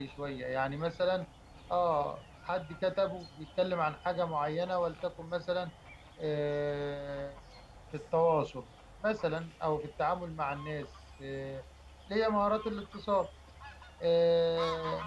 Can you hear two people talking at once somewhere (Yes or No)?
No